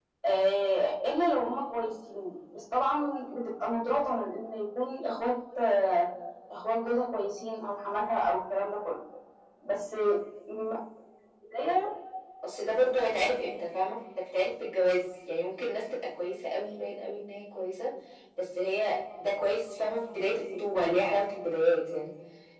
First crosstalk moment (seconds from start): none

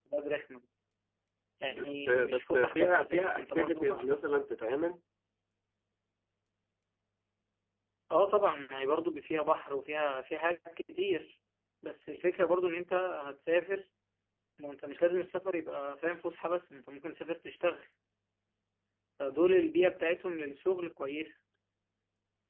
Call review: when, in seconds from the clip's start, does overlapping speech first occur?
1.7 s

